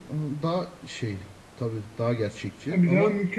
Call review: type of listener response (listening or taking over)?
taking over